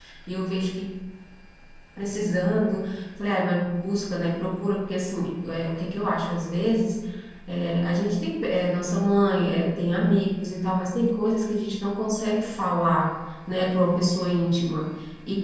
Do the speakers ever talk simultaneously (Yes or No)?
No